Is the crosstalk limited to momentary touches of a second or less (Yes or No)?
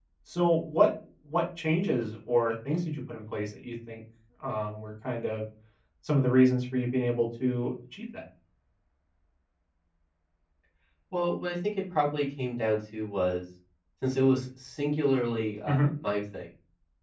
Yes